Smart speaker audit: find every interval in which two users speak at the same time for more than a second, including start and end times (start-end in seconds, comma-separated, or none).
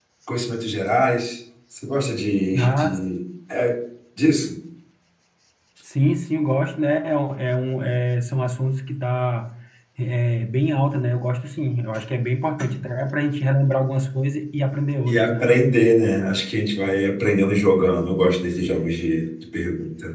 none